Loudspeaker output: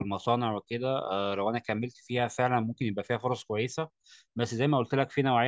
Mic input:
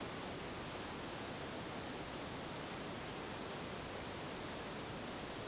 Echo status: none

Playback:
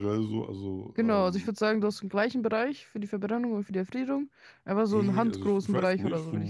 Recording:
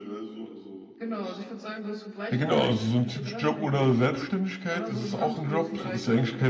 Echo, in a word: present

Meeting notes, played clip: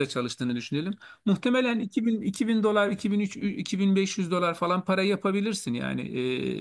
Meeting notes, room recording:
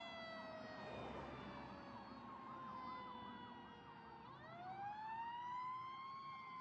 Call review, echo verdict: none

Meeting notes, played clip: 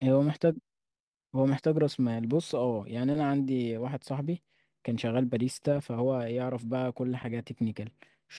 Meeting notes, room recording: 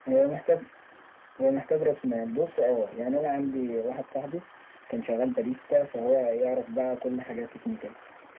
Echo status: present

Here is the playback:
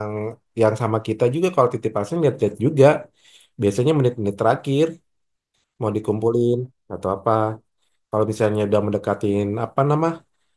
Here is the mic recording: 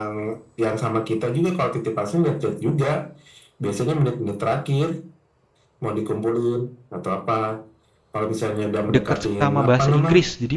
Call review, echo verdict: present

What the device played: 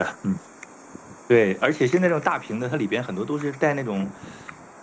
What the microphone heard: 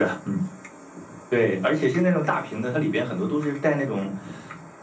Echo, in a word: present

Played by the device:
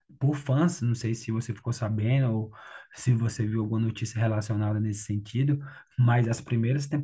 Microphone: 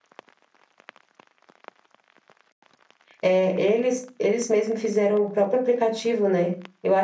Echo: none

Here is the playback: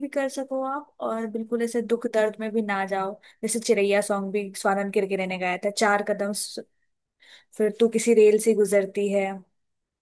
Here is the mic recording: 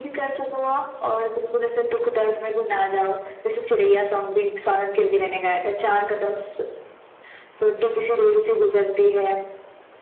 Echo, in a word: present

